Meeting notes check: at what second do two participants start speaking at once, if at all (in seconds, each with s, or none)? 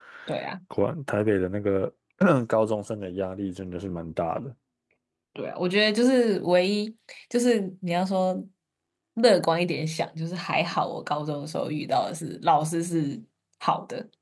none